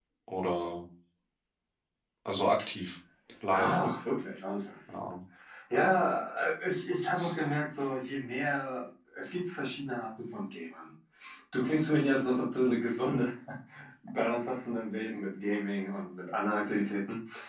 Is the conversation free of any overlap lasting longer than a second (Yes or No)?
Yes